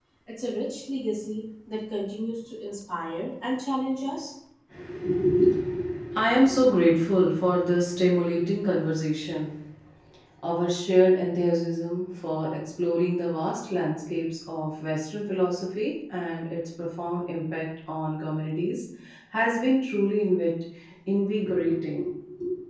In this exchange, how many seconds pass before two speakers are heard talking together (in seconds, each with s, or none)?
none